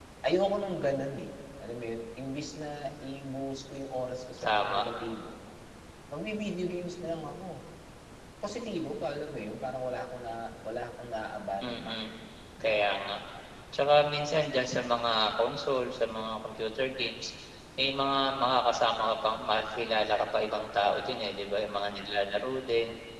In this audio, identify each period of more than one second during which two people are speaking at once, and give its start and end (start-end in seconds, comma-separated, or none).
none